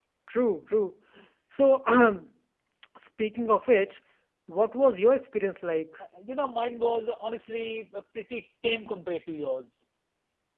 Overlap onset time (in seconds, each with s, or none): none